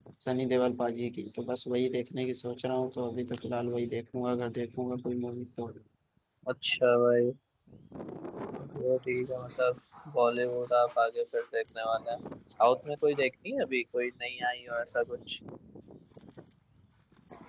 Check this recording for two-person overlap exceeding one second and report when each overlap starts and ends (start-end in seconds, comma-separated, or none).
none